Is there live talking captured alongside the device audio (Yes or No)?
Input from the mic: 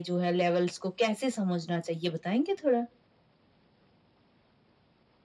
No